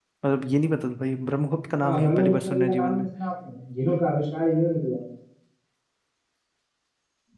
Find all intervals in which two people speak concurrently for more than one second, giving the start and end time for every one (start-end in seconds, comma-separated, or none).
1.8-3.0